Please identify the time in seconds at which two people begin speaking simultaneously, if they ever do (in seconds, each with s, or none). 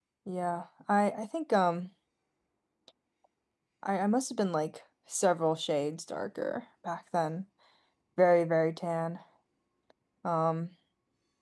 none